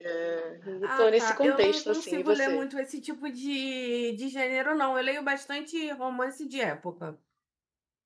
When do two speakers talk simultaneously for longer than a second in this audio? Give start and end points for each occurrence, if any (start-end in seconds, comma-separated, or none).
0.8-2.6